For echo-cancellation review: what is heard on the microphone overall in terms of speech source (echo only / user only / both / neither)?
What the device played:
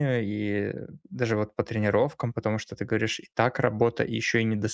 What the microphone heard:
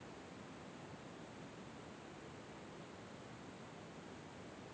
neither